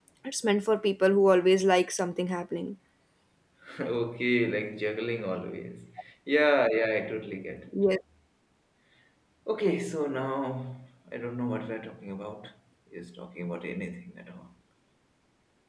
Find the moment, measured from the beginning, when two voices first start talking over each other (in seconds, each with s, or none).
none